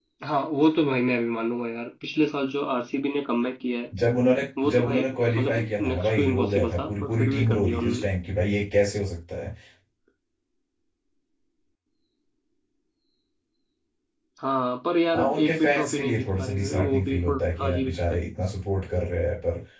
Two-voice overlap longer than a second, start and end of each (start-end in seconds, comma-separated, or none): 5.4-8.1, 15.1-18.0